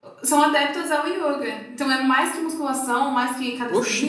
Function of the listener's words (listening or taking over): taking over